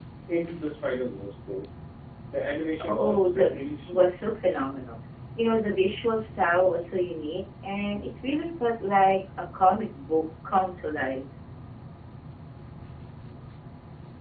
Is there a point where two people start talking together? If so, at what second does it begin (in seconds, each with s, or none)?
2.9 s